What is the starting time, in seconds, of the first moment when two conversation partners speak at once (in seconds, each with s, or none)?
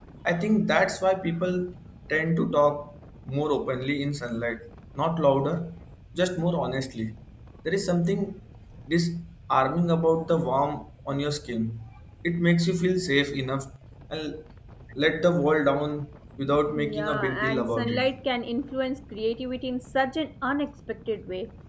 16.5 s